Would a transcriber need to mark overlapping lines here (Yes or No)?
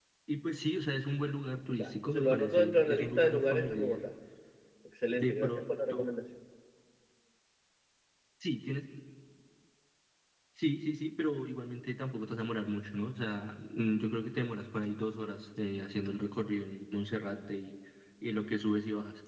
Yes